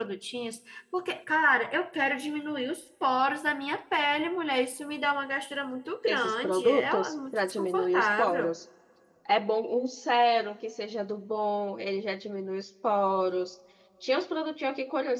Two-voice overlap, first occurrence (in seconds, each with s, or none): 6.1 s